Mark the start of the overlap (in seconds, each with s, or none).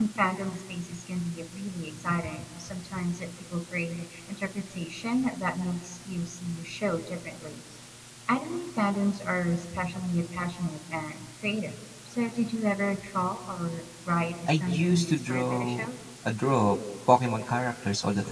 14.5 s